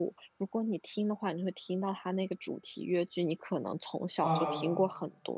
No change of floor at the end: Yes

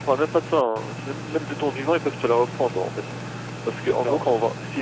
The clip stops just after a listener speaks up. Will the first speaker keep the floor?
Yes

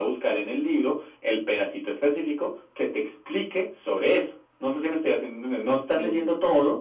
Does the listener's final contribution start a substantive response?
No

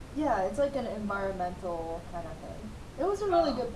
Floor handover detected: No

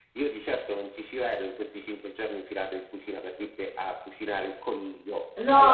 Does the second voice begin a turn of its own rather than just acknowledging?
Yes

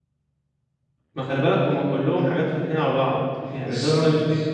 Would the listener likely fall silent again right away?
Yes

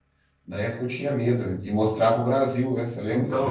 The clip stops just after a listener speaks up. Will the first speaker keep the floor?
No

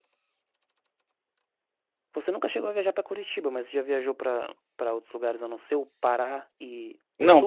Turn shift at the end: Yes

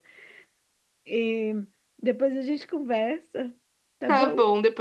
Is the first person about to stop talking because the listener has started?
Yes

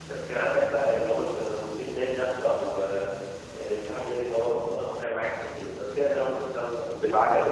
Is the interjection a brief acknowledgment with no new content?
No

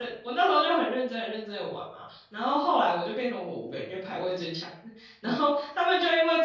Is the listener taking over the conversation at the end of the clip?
No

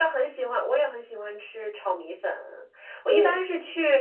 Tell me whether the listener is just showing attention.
Yes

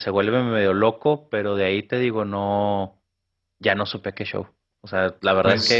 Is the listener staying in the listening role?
Yes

